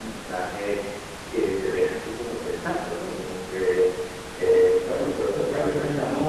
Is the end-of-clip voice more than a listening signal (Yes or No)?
No